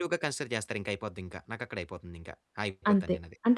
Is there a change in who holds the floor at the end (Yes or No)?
Yes